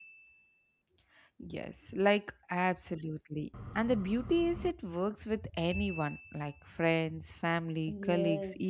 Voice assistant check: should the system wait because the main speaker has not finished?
No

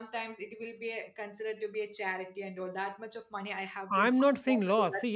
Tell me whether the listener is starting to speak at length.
Yes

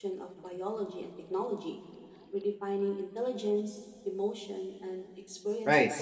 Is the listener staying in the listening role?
No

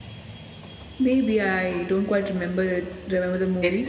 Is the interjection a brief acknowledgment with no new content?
No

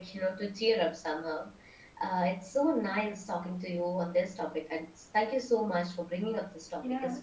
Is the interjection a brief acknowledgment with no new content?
No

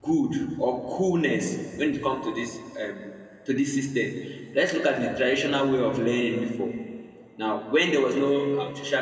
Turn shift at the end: No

